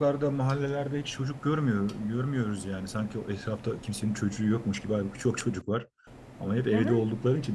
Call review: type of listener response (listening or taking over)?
listening